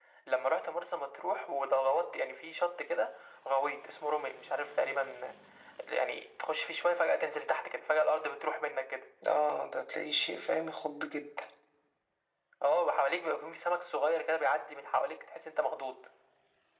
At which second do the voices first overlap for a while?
none

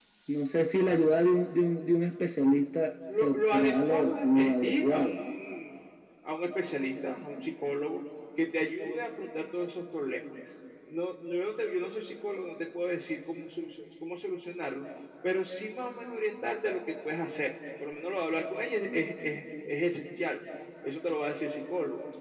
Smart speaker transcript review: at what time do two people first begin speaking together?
3.1 s

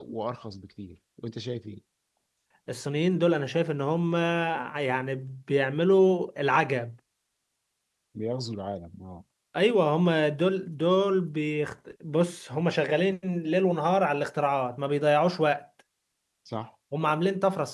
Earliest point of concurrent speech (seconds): none

